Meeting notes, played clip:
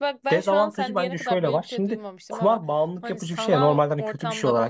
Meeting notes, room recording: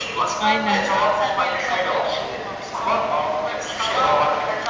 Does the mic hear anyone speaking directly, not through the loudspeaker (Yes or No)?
Yes